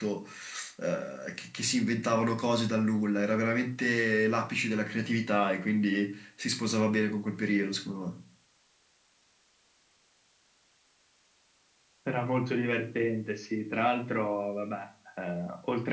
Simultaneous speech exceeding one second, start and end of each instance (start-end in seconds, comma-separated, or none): none